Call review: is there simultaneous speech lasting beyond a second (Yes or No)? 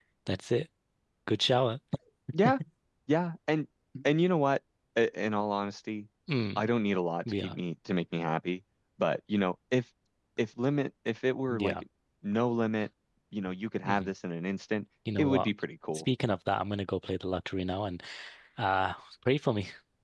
No